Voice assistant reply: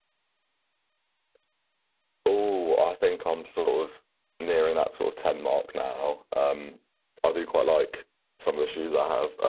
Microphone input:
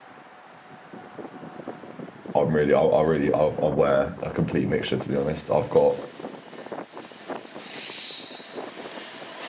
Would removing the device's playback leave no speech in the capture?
No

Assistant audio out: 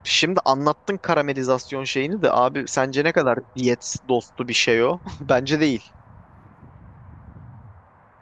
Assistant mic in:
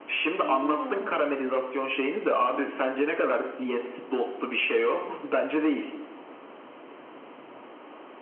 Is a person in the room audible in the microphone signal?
Yes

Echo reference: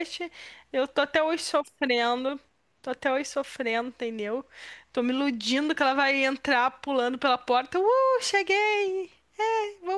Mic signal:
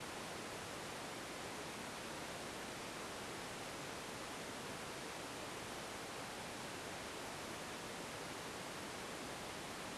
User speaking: No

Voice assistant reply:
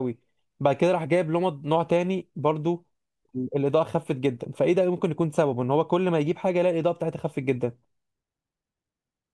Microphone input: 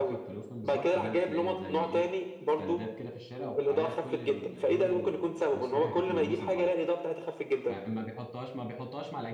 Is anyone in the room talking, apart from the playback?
Yes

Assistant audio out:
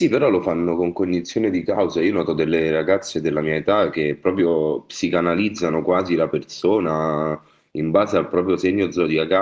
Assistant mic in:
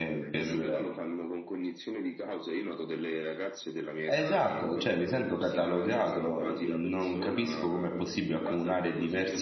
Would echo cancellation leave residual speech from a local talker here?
Yes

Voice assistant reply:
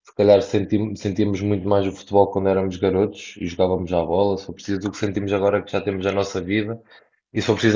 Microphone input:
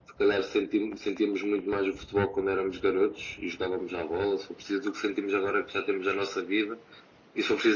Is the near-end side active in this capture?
No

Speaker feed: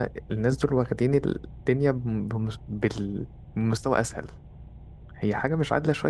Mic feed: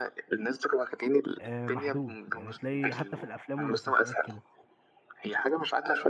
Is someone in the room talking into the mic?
Yes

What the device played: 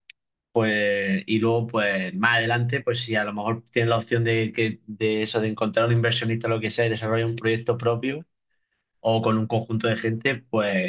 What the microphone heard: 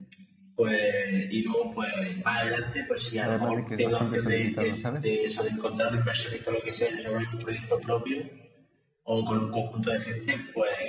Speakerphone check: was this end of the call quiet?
No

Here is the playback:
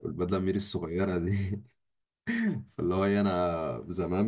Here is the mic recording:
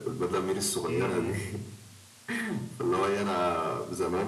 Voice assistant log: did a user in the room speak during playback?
Yes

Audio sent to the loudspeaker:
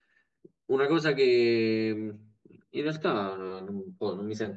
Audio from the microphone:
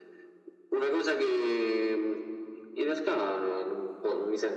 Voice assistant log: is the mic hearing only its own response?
Yes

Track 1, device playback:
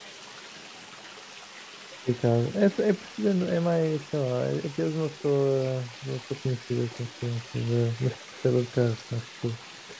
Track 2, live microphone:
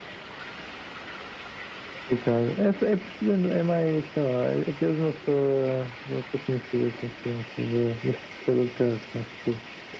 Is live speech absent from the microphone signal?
Yes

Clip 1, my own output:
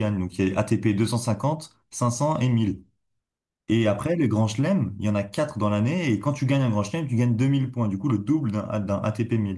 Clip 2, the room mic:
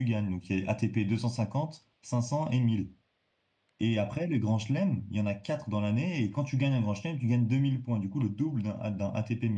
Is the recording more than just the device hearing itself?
No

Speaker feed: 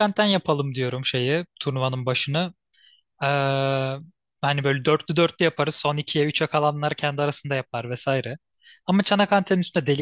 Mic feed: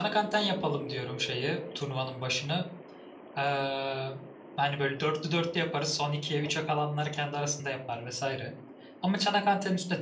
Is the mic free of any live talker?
Yes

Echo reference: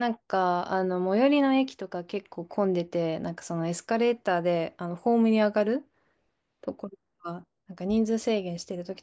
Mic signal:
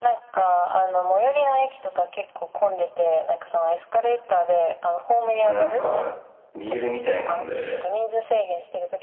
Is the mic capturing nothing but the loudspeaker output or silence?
No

